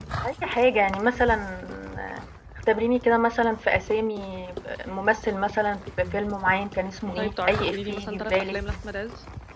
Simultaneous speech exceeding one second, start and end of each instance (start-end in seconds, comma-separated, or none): 7.2-8.6